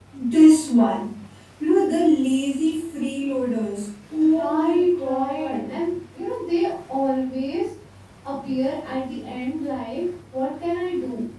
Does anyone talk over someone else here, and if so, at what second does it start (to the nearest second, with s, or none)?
4 s